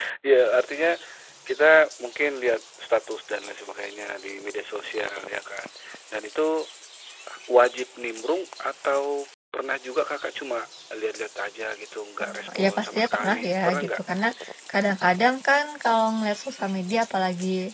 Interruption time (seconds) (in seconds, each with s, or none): 12.2 s